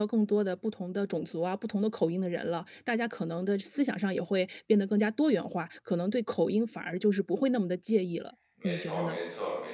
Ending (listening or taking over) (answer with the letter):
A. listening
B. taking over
B